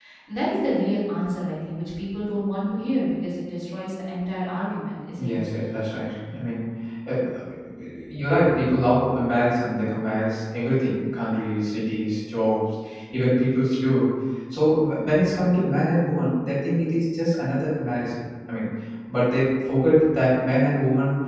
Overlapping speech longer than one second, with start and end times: none

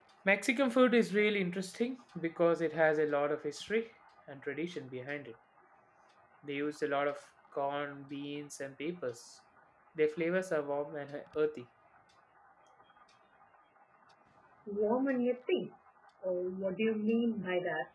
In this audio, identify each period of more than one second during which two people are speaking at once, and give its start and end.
none

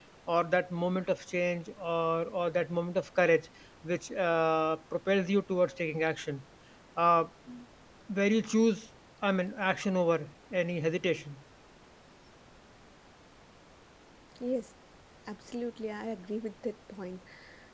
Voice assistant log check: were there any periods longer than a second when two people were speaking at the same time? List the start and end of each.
none

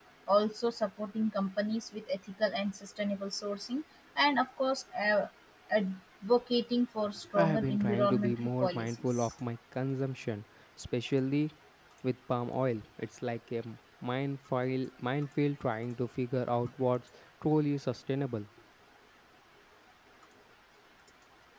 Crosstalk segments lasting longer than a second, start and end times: 7.3-9.3

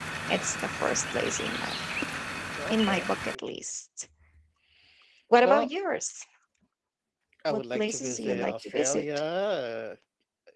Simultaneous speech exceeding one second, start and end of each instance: 7.5-9.1

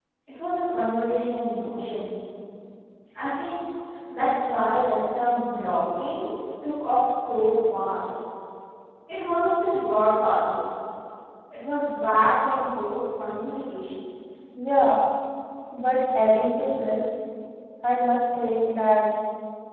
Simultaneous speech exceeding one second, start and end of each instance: none

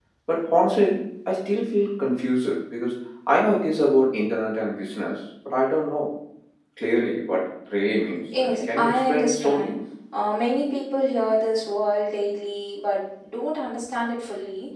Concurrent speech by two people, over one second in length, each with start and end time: 8.4-9.7

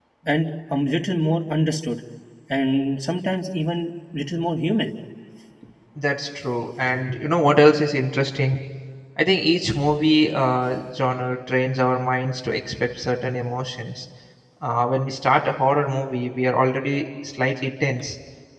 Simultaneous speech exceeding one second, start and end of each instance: none

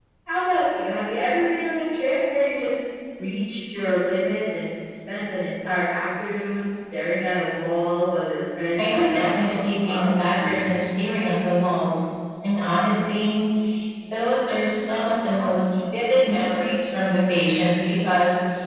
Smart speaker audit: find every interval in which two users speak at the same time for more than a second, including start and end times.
8.8-10.1

